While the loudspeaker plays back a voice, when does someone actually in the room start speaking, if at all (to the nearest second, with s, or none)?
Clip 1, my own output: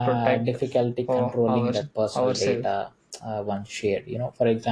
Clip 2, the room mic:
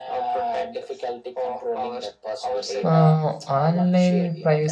3 s